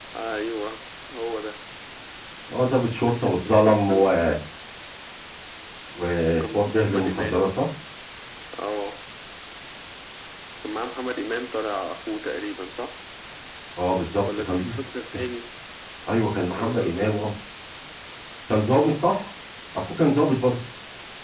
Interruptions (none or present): present